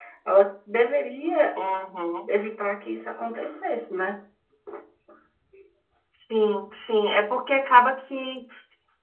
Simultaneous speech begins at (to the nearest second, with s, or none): none